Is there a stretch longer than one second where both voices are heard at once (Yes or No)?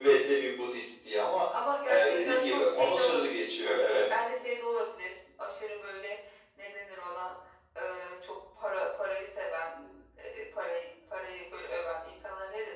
Yes